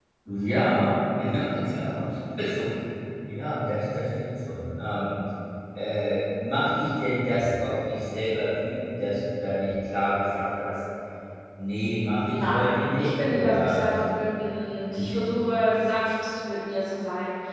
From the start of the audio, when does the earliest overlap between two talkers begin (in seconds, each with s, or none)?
12.3 s